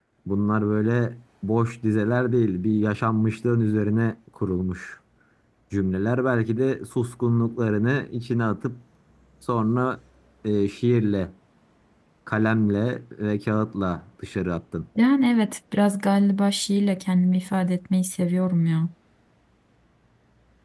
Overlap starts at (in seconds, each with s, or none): none